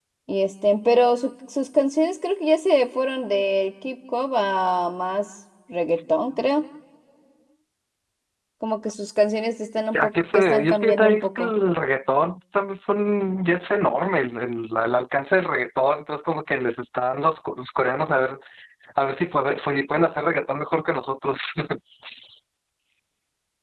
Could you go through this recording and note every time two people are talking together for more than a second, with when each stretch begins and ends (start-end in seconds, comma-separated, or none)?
10.0-11.5